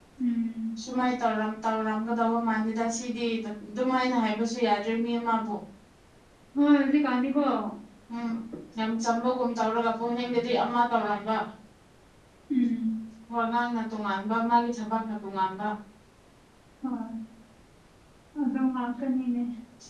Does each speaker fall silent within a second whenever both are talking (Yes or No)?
Yes